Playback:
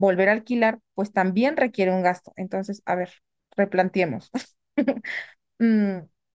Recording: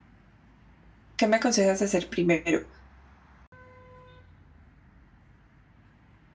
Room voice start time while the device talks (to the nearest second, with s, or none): 1 s